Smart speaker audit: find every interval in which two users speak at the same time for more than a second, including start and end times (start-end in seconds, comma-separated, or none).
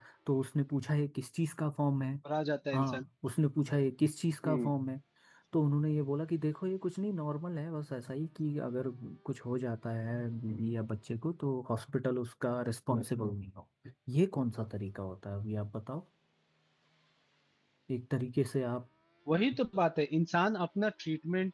none